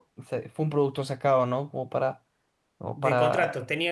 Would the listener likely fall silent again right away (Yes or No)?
No